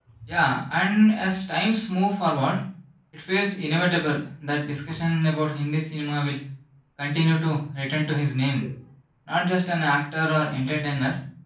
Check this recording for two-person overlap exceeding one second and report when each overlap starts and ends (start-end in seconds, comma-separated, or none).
none